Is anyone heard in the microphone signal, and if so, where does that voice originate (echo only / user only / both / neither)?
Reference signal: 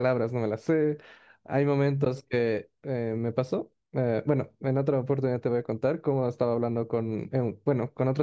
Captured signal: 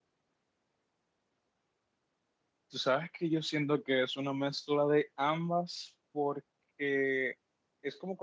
user only